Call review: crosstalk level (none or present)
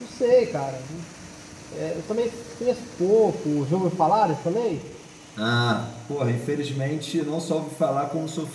none